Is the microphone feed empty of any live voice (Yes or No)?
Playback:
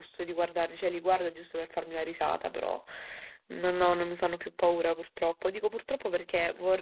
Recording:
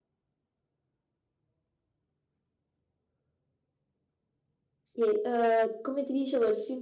No